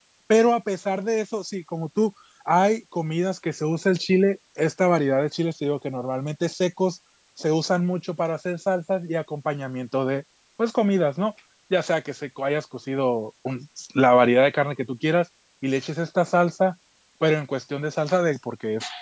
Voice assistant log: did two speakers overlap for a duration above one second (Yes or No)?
No